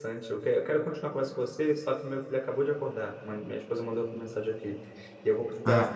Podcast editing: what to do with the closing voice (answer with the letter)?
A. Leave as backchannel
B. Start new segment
A